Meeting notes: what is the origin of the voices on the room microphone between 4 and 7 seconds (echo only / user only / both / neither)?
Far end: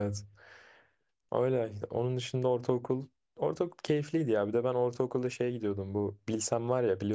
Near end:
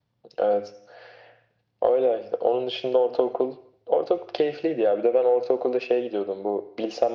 echo only